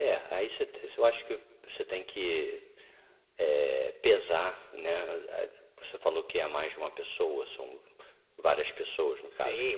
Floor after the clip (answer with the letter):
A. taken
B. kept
A